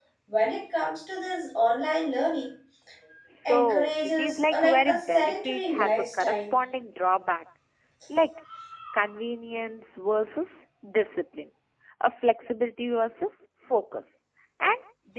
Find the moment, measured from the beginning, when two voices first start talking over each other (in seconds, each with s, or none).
3.5 s